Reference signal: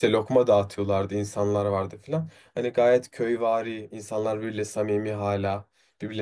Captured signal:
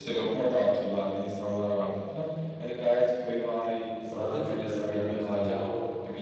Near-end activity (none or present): present